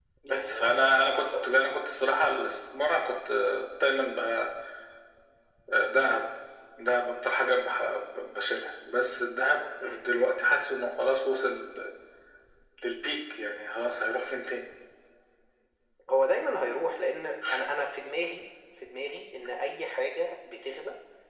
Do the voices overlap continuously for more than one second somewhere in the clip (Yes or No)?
Yes